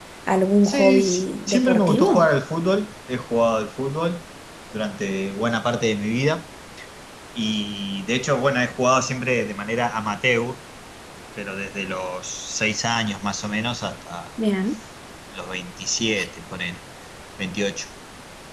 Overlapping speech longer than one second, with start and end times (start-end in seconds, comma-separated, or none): 0.6-2.3